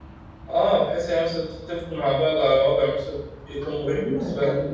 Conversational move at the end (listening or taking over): taking over